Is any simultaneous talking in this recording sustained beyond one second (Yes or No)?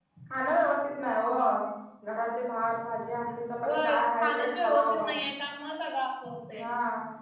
Yes